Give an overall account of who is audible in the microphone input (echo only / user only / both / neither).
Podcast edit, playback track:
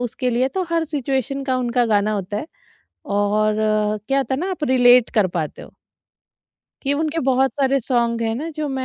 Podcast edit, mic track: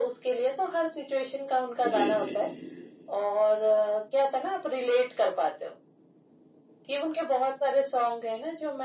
both